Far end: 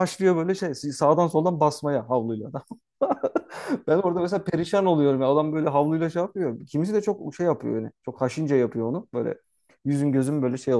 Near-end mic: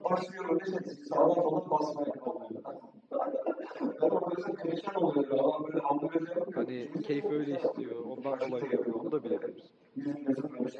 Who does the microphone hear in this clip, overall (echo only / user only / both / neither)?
both